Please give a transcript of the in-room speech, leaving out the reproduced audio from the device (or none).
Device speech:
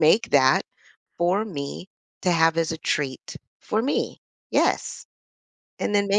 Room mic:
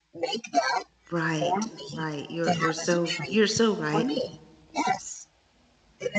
Right. Right. You're you're so you're so right.